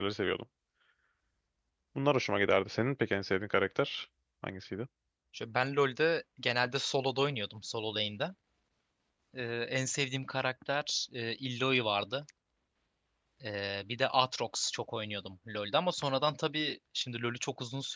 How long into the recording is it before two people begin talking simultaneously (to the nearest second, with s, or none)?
none